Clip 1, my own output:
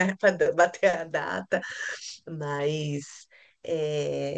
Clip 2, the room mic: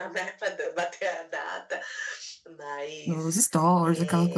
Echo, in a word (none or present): present